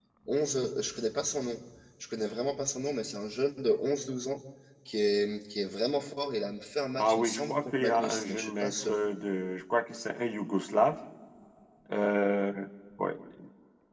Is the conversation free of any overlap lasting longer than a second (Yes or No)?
No